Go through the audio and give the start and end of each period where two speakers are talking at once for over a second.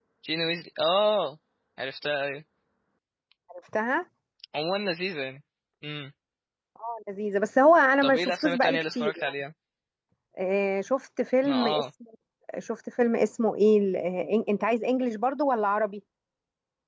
8.0-9.3

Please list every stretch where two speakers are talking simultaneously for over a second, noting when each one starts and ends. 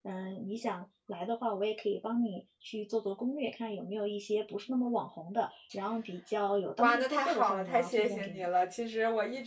6.8-8.5

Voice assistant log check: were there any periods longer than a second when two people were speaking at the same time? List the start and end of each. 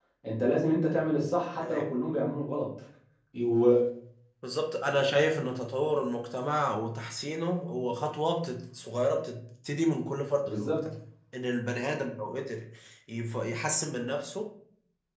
none

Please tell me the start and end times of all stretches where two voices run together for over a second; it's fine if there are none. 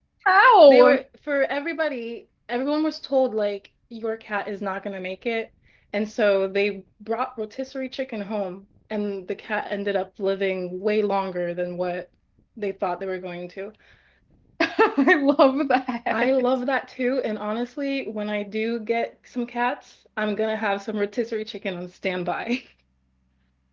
none

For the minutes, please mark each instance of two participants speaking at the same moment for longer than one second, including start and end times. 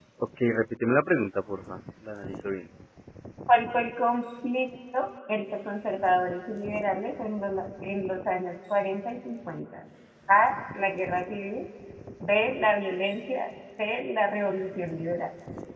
none

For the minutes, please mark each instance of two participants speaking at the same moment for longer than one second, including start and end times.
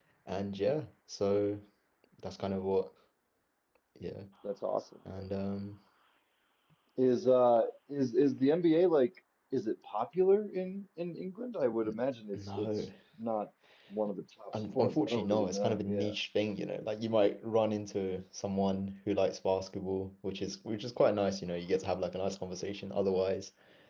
14.8-16.2

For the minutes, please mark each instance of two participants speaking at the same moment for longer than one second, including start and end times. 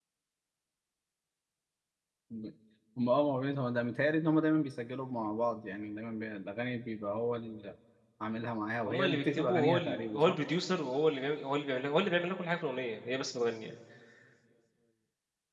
8.8-10.4

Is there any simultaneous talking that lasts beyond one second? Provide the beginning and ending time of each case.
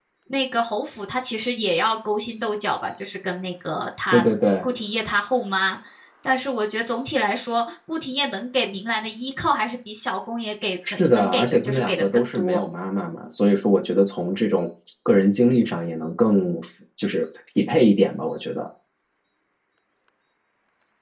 10.9-12.6

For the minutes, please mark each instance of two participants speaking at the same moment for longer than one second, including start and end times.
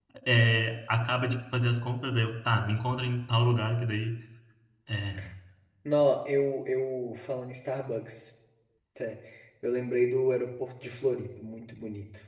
none

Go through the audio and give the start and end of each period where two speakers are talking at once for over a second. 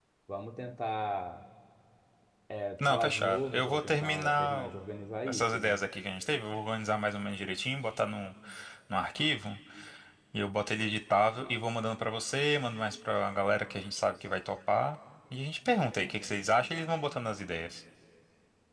2.8-4.7

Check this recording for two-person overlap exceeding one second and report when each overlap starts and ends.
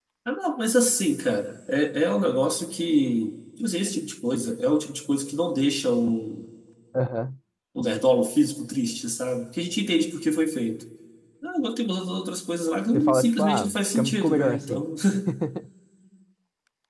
12.9-14.8

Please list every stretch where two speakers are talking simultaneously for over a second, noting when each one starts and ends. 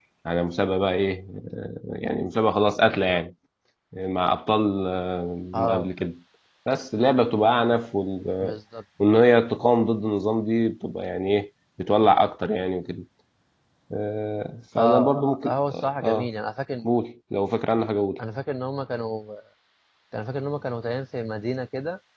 14.8-16.3

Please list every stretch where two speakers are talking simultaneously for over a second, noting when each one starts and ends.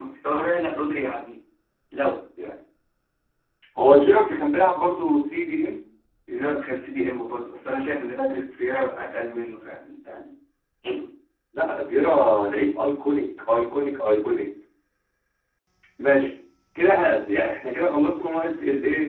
none

